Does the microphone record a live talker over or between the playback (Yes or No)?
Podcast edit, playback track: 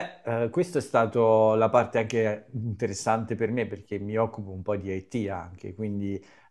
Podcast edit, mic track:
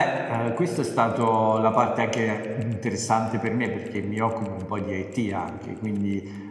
No